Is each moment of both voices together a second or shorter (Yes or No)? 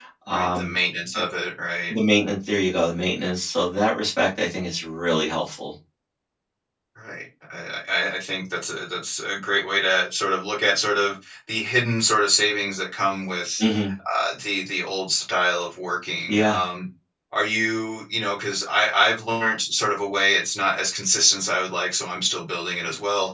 Yes